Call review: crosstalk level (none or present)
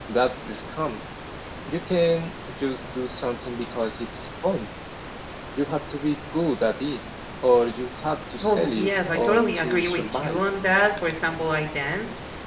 present